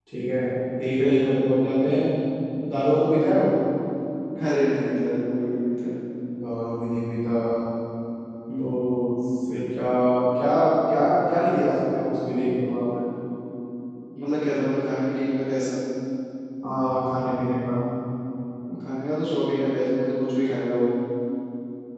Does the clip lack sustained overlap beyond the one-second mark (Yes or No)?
Yes